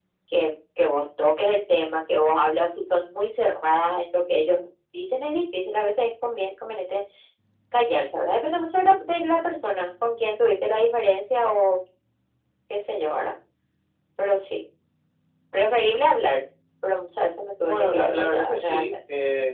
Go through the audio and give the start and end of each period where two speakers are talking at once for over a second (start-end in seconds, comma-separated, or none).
17.6-18.9